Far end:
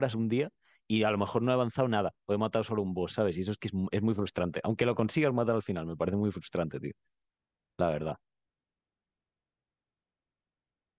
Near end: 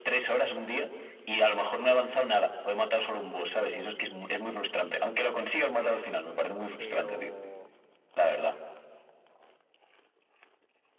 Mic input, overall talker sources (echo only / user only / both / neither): both